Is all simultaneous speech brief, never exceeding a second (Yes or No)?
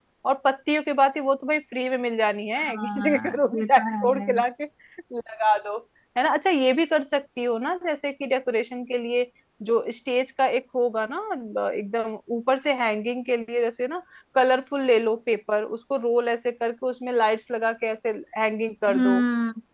No